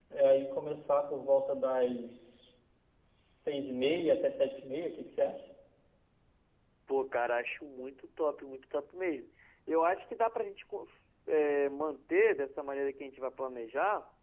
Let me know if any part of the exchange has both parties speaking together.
No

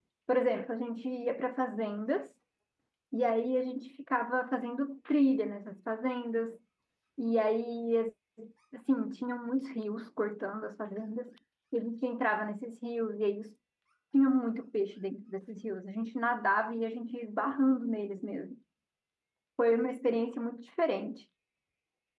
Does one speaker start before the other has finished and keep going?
No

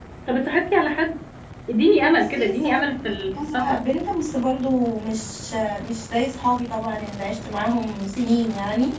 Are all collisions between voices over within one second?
No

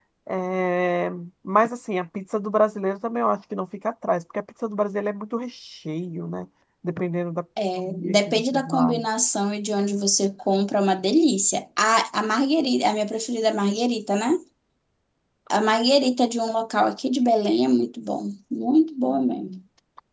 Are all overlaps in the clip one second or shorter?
No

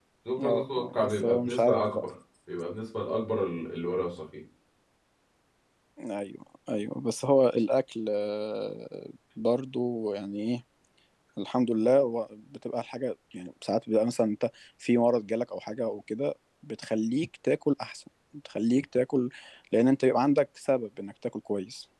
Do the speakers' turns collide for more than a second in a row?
Yes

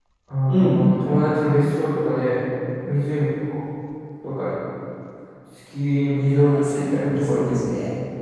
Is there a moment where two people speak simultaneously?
Yes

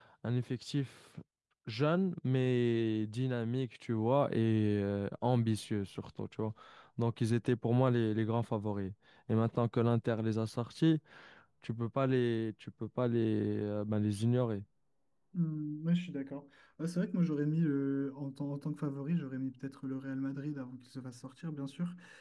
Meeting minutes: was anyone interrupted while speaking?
No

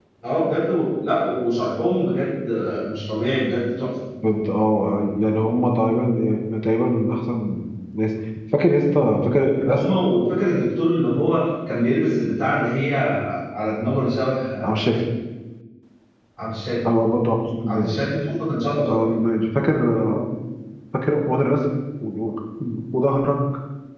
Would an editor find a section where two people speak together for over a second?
No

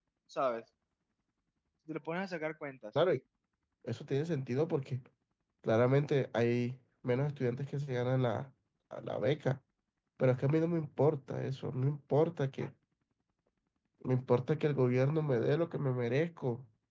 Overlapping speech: No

